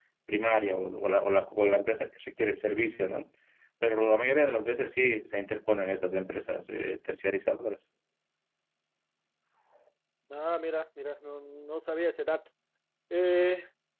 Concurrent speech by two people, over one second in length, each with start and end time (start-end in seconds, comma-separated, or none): none